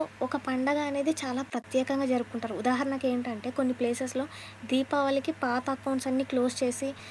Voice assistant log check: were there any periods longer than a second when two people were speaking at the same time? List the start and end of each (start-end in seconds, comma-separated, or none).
none